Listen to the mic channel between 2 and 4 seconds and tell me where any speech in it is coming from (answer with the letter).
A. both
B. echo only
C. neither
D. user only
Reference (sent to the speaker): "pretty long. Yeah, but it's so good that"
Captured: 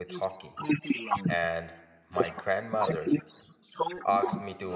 A